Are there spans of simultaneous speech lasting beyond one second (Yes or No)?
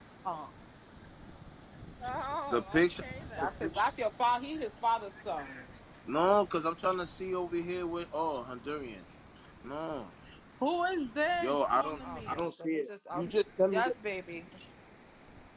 Yes